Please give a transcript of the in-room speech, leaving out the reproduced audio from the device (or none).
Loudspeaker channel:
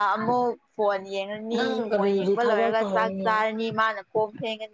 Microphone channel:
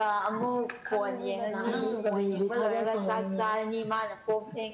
ꯎꯝ ꯈꯪꯒꯅꯤꯗ ꯂꯥꯛꯑꯗꯤ